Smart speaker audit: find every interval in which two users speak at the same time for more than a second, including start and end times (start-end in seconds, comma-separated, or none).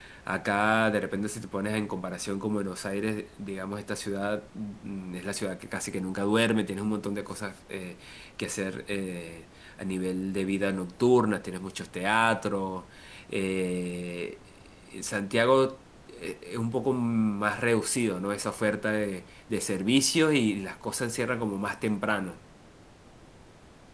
none